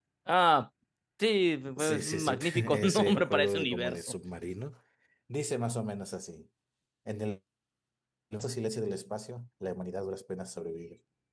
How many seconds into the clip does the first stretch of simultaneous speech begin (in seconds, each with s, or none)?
1.8 s